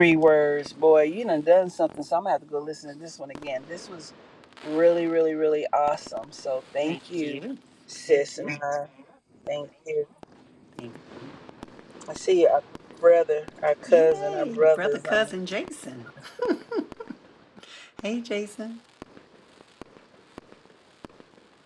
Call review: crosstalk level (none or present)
present